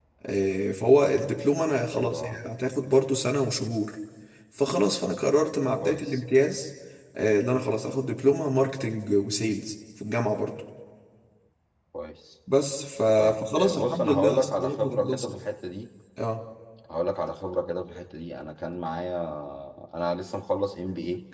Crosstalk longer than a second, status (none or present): present